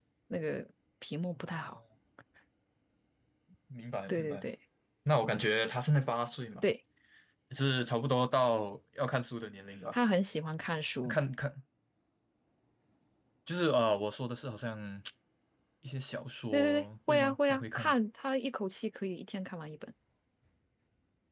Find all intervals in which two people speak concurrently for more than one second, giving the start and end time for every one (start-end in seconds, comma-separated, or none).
16.5-17.9